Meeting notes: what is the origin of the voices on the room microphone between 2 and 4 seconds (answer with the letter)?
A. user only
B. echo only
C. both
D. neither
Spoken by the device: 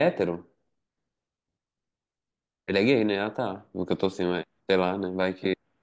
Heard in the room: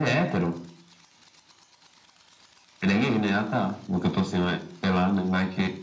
B